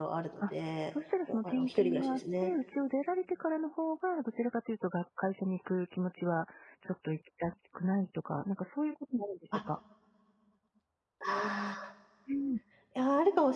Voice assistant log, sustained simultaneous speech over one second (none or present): present